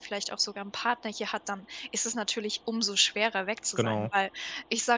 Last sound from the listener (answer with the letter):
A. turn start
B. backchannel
B